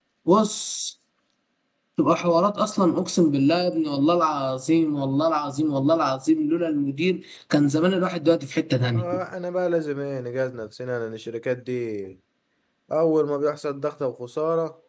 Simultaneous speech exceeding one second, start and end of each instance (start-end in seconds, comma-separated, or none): none